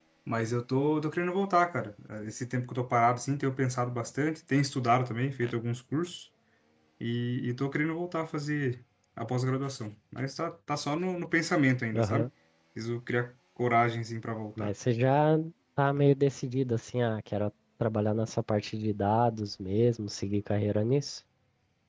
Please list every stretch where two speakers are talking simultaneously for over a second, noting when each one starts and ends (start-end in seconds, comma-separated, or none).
none